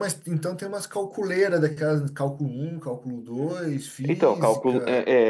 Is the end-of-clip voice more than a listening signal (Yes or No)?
Yes